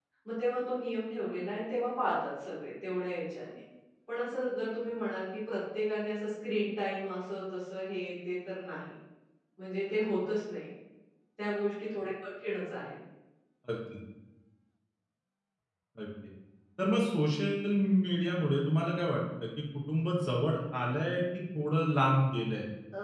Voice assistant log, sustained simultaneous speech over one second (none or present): none